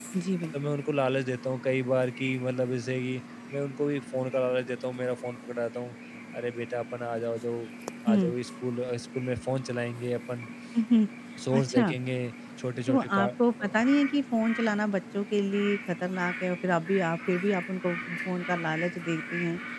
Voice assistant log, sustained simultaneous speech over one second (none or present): none